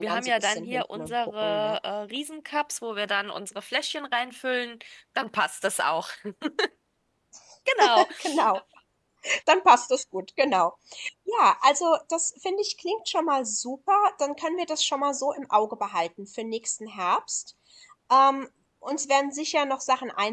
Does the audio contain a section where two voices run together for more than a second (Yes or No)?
Yes